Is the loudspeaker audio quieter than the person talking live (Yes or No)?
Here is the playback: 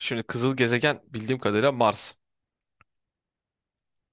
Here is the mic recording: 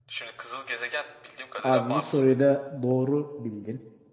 Yes